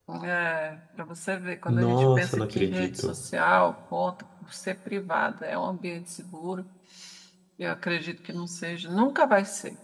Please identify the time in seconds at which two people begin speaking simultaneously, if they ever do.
1.7 s

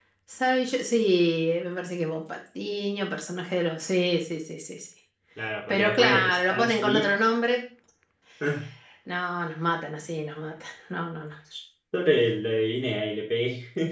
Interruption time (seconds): 5.7 s

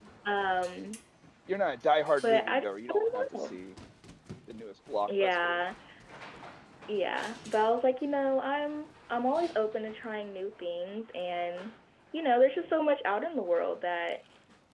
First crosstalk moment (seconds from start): 2.2 s

